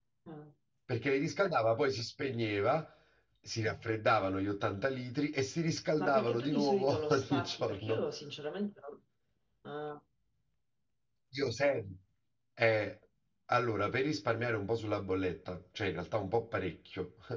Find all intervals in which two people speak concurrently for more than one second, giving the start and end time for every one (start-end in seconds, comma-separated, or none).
6.0-8.0